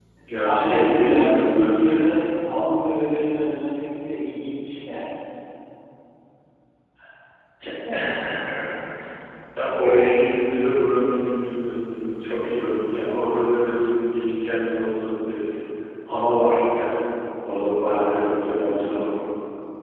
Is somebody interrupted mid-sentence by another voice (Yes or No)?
Yes